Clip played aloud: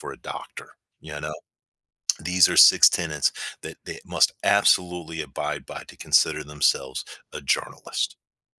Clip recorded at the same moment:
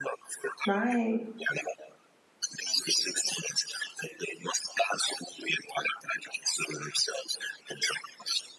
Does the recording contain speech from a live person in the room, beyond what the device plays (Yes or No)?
Yes